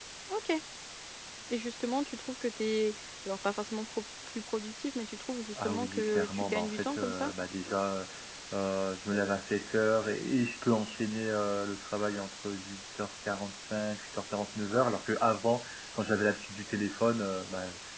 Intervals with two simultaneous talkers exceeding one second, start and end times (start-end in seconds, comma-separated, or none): 5.6-7.3